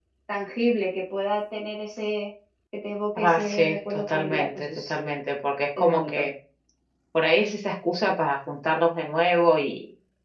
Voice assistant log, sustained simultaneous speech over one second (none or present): present